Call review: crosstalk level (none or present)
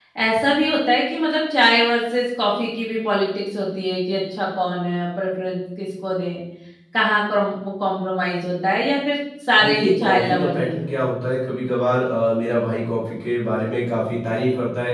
present